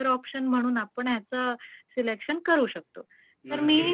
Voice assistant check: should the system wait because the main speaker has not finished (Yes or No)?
No